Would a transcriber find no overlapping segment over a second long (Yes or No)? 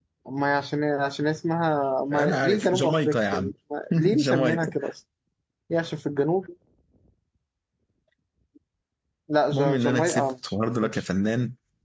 No